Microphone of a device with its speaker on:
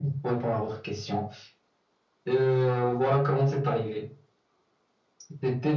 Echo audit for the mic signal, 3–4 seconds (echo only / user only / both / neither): echo only